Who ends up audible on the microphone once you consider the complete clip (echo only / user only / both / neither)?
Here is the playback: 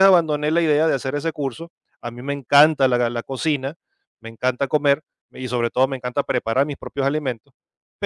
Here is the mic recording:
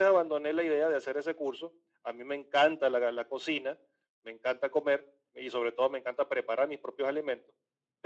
echo only